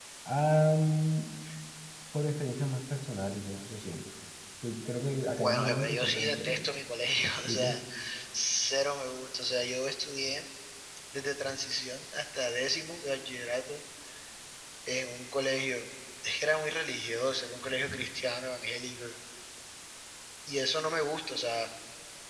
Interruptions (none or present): present